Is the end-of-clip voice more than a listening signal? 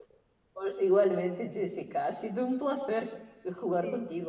No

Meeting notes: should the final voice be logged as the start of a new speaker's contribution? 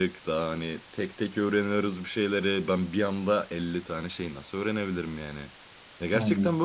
No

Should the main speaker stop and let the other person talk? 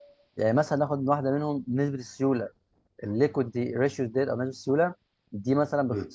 No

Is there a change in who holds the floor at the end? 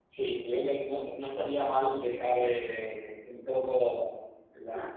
No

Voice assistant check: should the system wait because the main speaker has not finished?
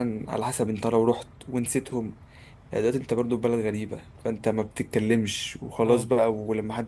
Yes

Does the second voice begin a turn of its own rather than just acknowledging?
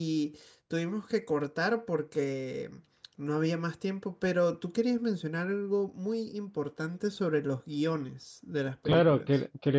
Yes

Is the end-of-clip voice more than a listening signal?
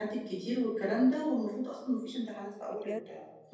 Yes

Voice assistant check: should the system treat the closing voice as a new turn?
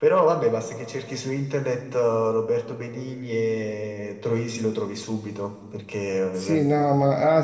Yes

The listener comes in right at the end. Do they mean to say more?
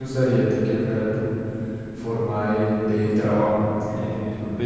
Yes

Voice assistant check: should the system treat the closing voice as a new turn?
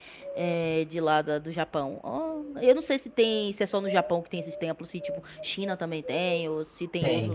Yes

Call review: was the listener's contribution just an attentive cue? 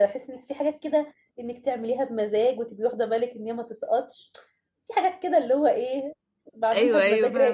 No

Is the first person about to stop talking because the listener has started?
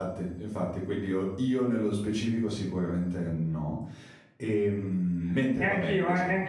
Yes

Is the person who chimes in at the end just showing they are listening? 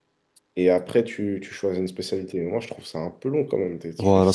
No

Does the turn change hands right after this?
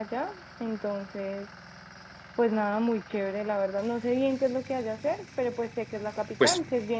Yes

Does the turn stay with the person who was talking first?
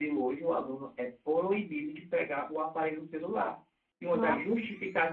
Yes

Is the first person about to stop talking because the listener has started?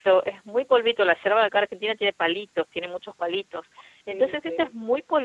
No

